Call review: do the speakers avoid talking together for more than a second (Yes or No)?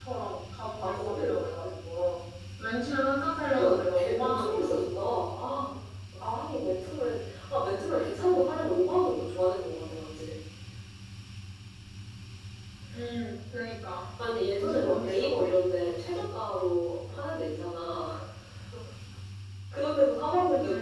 No